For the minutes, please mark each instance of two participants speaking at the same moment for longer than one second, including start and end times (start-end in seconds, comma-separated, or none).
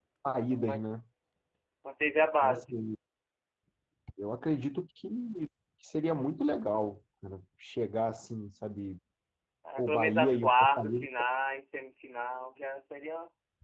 9.8-11.0